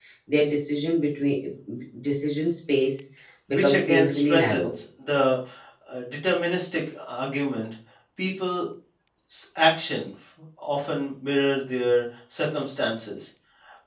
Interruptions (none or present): present